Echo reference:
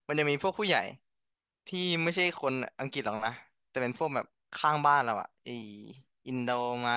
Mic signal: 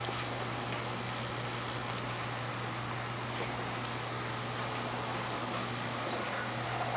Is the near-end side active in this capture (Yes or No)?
No